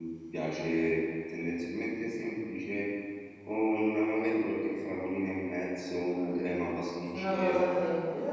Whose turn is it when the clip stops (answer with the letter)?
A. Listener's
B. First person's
A